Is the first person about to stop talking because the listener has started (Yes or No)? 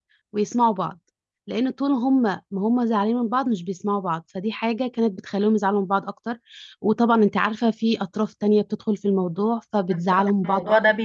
Yes